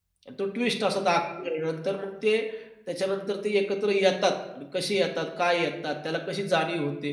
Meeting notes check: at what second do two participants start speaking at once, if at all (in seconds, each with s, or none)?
none